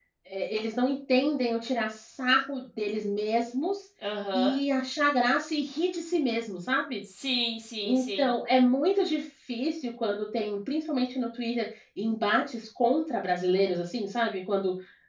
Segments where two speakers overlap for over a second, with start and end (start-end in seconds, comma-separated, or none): none